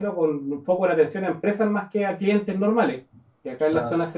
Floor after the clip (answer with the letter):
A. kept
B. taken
A